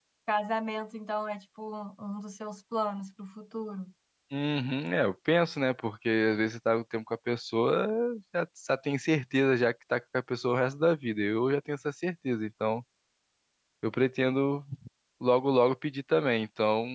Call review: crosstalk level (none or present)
none